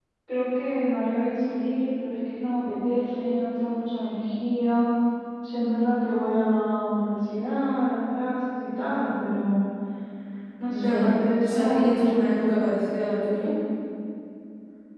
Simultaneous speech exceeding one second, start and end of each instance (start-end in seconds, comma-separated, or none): 10.7-12.0